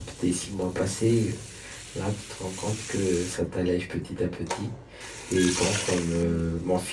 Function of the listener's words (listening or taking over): listening